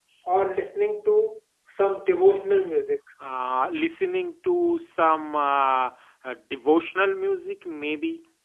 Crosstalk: none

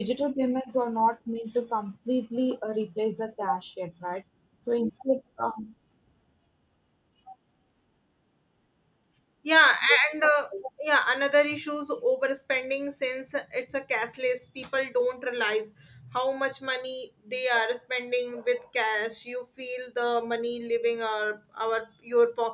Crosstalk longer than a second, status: none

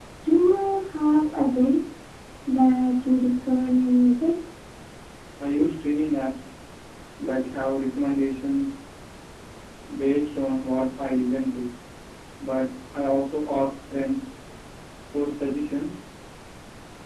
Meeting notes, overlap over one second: none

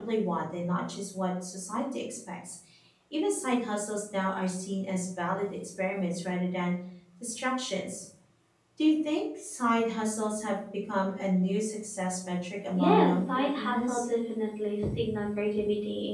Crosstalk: present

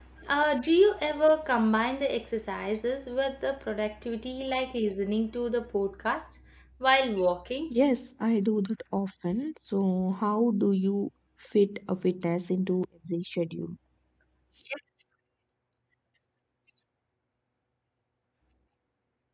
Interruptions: none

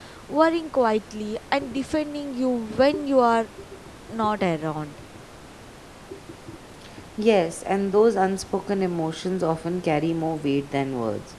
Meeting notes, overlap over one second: none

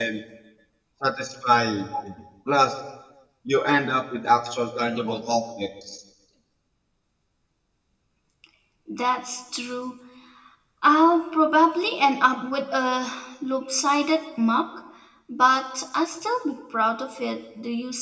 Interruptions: none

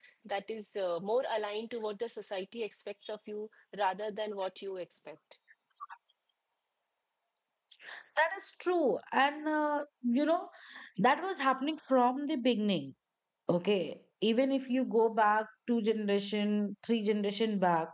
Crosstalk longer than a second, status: none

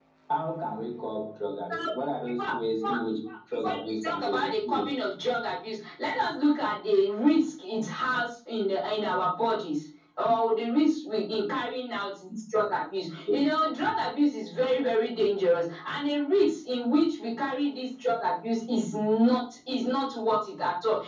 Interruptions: present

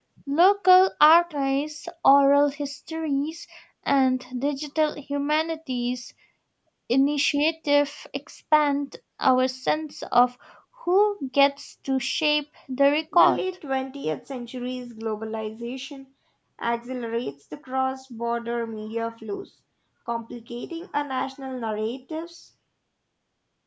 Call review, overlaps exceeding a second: none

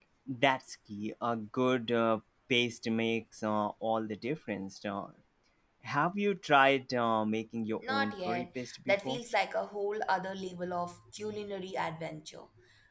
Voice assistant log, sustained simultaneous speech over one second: present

